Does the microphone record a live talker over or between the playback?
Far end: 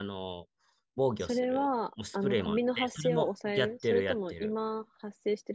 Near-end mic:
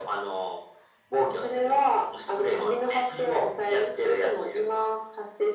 No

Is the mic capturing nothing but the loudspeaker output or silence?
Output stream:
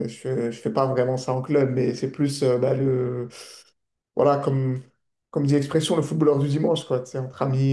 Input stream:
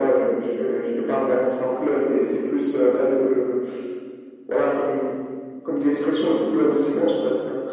Yes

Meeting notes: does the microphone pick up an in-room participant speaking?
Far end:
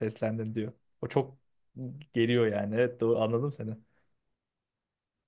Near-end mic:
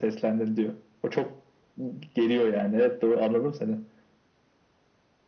No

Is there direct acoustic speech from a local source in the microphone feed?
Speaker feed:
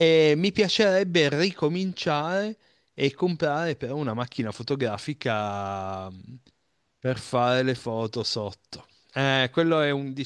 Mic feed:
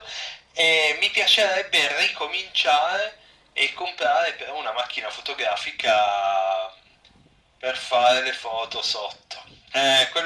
No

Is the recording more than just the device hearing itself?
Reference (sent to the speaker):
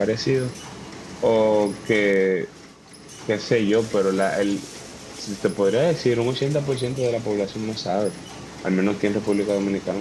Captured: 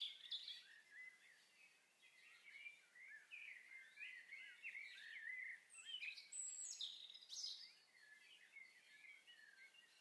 No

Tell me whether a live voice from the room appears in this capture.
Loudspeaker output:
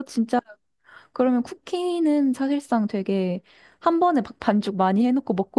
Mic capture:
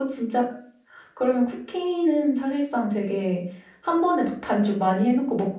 No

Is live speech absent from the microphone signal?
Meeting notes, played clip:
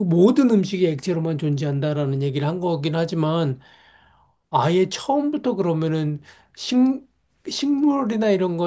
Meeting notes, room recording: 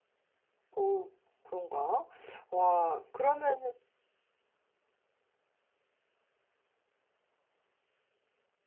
No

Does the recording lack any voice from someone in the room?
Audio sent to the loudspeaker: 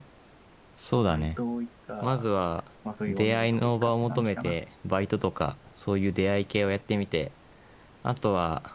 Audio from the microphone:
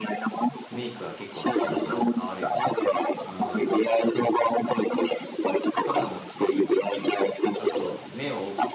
No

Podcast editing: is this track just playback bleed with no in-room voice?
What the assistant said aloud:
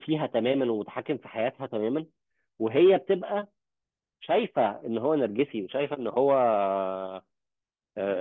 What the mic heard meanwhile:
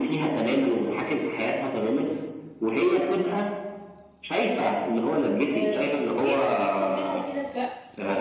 No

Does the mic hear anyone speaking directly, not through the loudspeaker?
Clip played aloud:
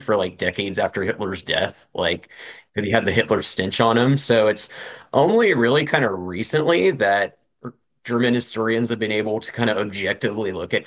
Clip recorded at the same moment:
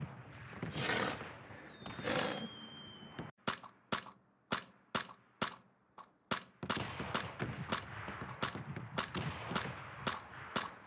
No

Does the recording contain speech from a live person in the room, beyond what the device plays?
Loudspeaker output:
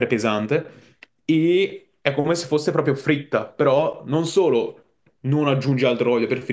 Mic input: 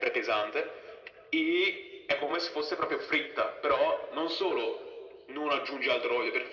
No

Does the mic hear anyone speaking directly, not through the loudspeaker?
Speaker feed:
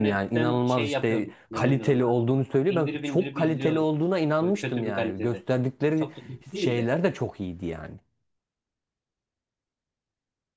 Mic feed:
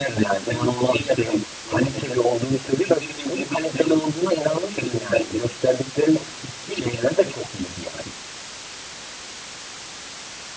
No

